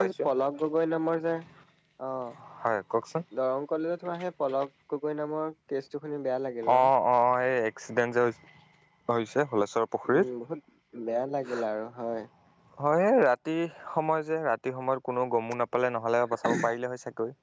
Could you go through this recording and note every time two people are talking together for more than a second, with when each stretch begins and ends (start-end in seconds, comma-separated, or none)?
none